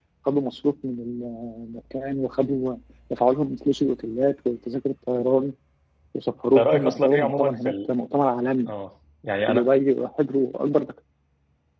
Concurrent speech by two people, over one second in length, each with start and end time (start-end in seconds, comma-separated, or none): 6.5-7.9